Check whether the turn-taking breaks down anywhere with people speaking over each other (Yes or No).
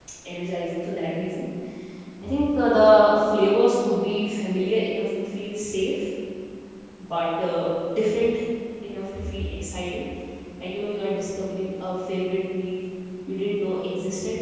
No